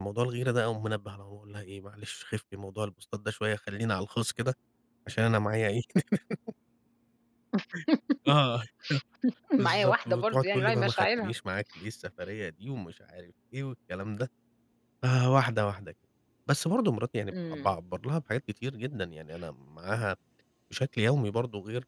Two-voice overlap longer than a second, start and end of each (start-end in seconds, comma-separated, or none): 9.6-11.3